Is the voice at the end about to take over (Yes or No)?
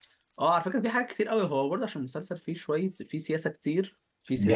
No